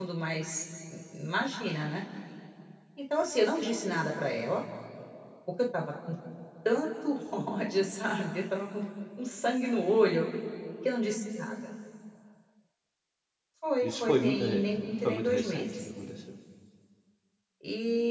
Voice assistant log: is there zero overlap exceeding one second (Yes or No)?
No